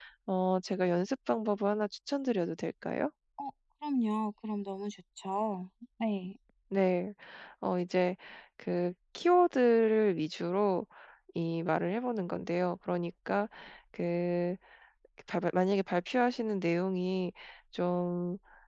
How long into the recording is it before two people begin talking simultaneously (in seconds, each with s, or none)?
none